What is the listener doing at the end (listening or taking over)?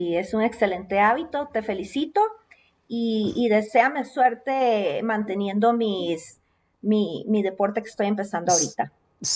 taking over